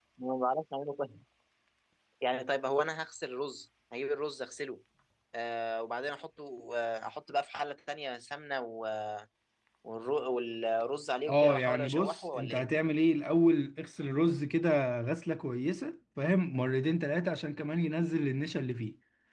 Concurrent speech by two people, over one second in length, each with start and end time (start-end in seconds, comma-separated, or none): 11.3-12.6